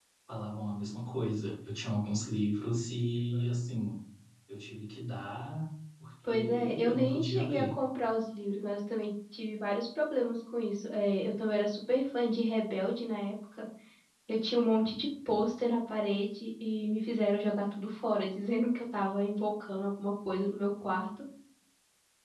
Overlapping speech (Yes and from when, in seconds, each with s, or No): Yes, from 6.2 s